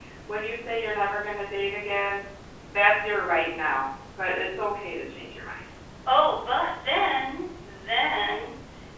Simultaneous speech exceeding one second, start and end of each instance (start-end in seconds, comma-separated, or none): none